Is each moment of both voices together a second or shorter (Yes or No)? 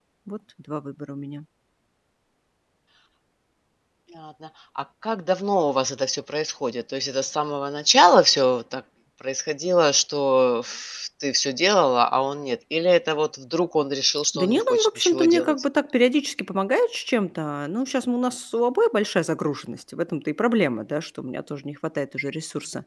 No